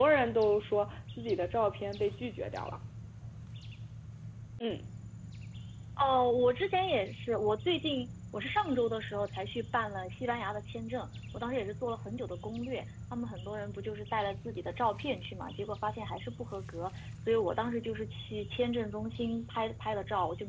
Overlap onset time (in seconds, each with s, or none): none